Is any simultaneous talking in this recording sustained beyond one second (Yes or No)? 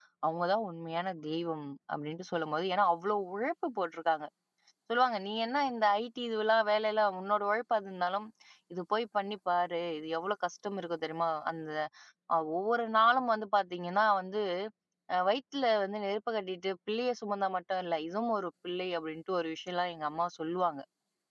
No